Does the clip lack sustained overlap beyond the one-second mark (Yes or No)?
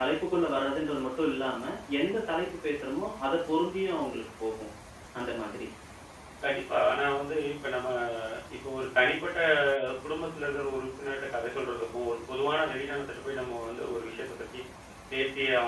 Yes